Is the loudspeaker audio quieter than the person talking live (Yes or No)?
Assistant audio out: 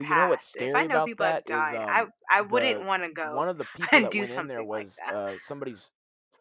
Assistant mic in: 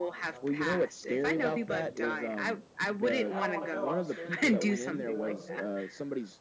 No